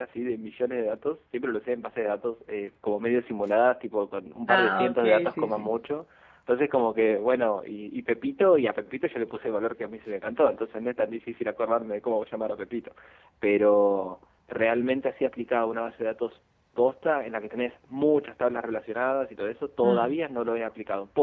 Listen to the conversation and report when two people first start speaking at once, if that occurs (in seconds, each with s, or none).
4.5 s